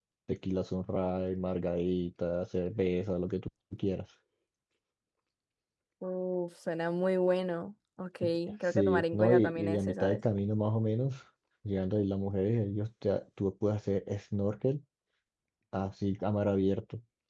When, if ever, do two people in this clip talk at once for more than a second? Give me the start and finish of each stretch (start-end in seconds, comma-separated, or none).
8.7-10.2